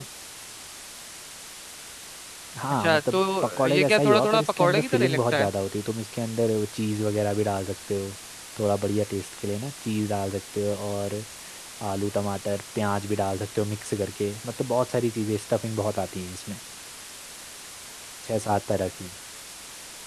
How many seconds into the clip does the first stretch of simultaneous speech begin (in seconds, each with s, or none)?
2.7 s